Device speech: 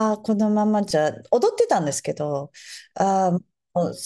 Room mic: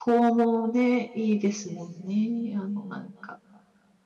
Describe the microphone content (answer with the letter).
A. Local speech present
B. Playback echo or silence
A